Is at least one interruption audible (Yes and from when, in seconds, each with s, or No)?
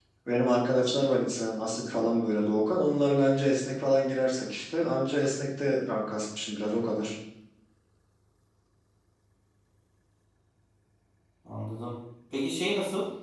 No